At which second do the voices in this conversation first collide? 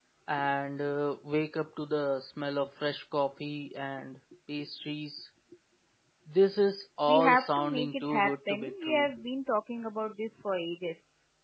7.1 s

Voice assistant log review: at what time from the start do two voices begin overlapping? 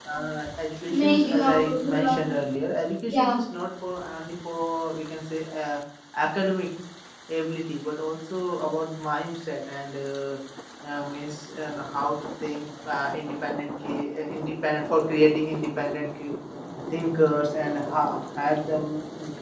0.9 s

